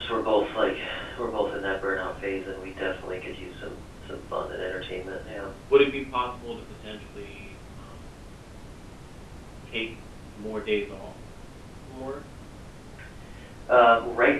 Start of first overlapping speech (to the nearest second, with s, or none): none